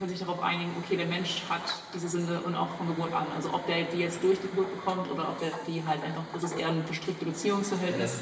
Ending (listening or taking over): listening